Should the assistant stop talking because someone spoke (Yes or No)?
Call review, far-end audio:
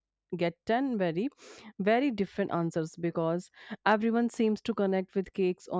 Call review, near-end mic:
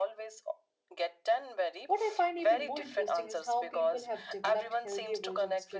Yes